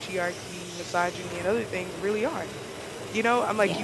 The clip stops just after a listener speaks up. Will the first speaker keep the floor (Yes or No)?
Yes